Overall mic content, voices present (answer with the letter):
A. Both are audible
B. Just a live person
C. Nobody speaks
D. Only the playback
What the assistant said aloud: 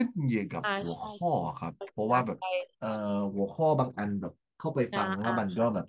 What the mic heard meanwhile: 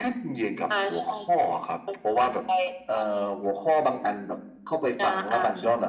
D